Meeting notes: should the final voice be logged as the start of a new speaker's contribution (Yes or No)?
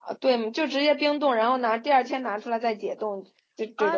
Yes